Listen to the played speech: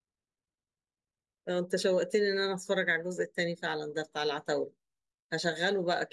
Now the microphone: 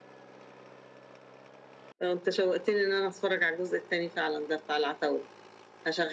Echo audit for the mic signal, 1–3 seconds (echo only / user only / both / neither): echo only